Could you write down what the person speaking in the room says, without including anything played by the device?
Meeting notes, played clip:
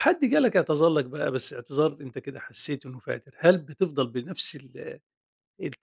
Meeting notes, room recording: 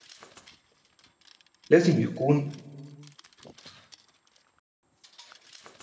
لازم يكون

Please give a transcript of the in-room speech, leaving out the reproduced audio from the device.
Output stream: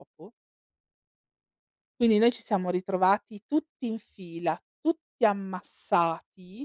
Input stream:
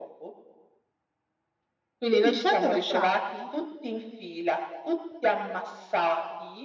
Quindi ci hanno lasciati

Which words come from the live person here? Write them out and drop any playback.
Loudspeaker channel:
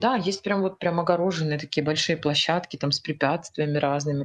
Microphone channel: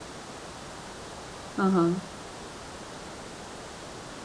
Ага.

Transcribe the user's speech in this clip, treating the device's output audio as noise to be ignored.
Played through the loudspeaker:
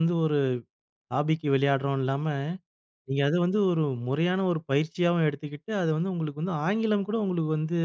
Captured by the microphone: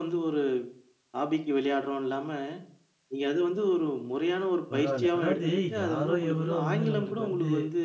பரவால்ல. அதாவது யாரோ எவரோ வந்து நம்மளுக்கு வந்து

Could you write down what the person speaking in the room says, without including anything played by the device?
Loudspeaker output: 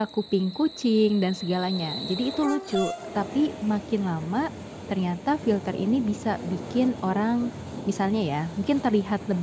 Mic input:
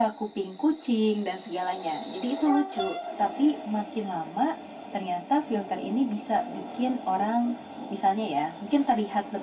none

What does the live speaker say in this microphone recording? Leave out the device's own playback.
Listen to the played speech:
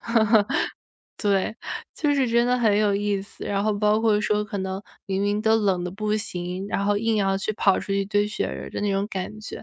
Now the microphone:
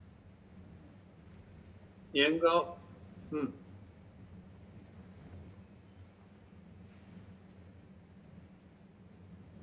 年糕，嗯

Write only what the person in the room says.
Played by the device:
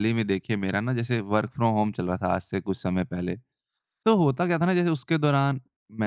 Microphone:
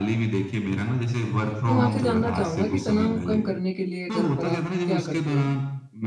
तो मैं आपसे जानना चाहूँगा कि तनाव कम करने के लिए घर पर आप क्या करते हो?

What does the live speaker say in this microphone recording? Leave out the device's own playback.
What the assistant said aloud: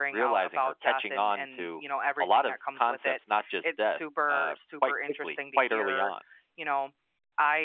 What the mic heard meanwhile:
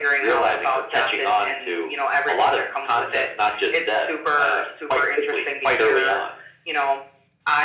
none

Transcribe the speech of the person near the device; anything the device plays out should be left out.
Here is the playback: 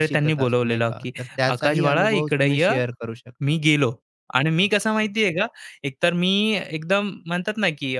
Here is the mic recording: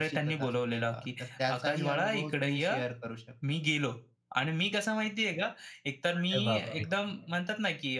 अरे बापरे!

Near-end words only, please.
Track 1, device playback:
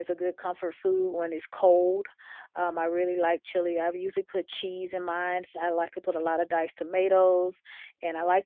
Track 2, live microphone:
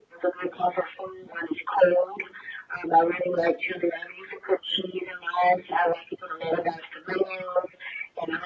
none

